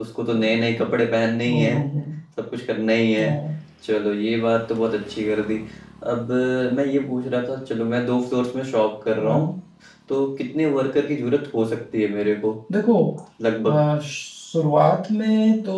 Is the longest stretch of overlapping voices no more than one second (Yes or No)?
Yes